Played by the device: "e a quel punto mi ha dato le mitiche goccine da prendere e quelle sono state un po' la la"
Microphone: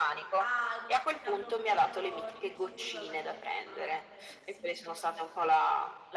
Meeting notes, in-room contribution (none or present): present